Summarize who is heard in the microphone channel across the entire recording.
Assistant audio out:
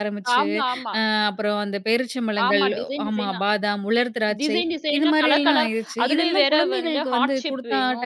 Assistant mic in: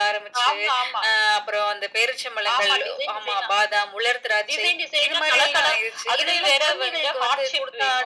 echo only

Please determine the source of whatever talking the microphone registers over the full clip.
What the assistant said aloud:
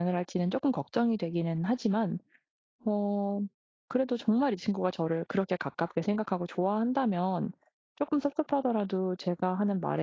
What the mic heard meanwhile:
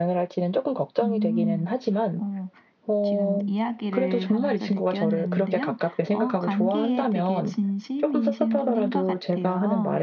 both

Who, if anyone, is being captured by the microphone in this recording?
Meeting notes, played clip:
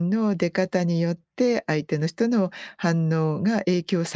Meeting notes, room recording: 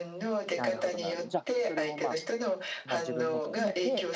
both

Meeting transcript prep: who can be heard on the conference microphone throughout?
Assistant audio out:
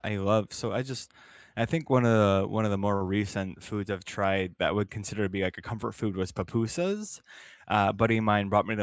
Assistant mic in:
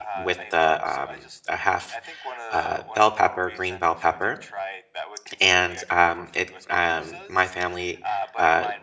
both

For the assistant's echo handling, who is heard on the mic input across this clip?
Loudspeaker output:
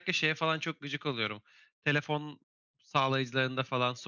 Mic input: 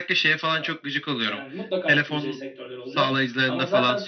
both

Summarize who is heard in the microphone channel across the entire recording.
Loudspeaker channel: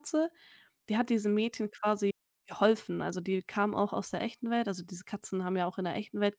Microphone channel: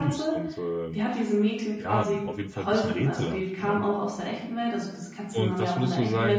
both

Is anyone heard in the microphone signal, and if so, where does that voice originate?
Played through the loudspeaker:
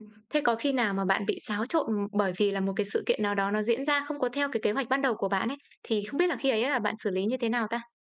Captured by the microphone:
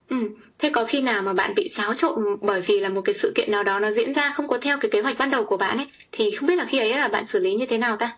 echo only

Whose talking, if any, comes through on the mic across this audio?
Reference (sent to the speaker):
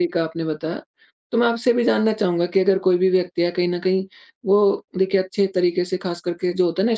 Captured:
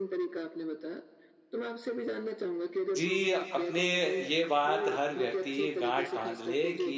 both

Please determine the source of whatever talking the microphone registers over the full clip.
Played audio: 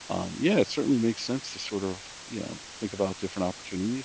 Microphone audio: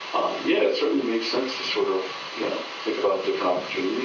echo only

